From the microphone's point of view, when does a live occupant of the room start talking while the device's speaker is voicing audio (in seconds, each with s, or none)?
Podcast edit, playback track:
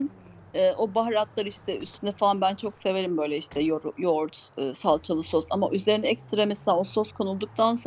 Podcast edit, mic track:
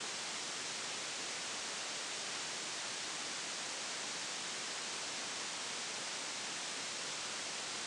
none